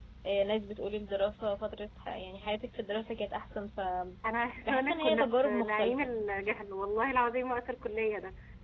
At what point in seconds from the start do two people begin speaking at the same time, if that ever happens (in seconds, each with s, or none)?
4.7 s